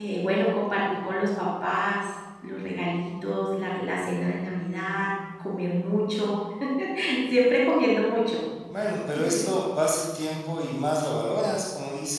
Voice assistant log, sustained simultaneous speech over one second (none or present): none